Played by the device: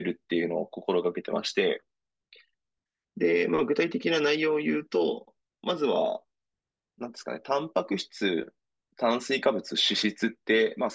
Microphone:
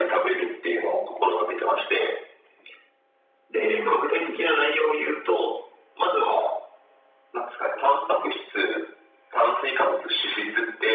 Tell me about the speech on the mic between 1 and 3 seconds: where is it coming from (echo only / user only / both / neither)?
echo only